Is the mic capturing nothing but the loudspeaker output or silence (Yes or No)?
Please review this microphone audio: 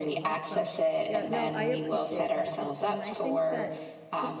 No